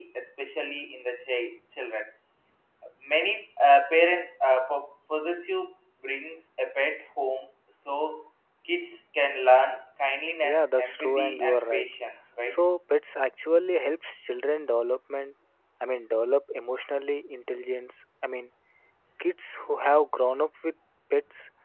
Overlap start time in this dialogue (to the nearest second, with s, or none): 10 s